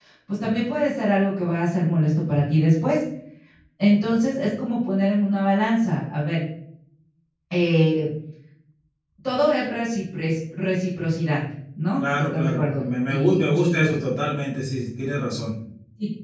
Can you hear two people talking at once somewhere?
Yes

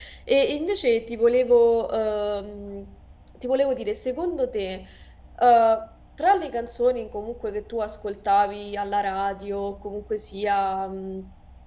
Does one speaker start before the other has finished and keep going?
No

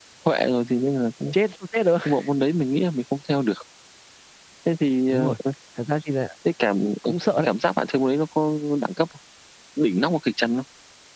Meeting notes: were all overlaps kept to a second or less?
Yes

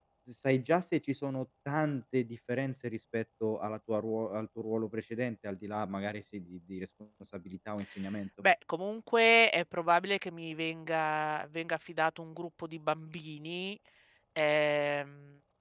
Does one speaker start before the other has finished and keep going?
No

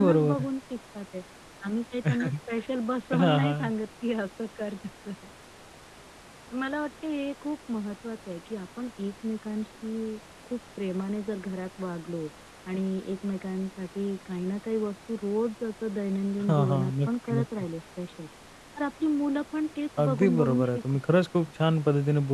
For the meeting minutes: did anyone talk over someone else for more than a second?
Yes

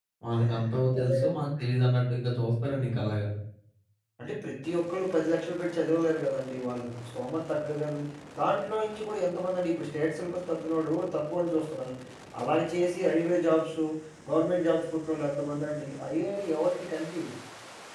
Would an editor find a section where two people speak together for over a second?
No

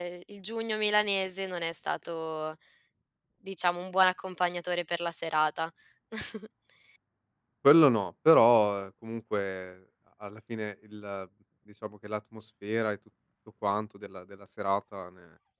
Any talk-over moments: No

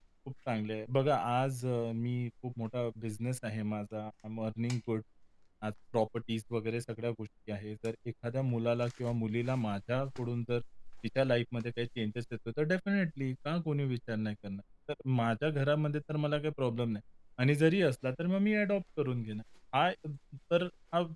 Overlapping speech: No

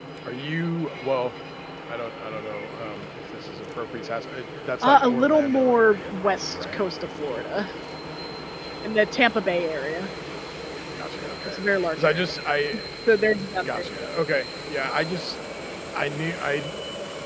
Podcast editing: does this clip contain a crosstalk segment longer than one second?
Yes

